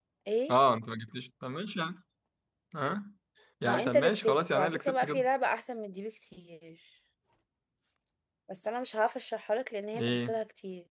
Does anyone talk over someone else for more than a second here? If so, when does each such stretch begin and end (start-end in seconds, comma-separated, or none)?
3.6-5.2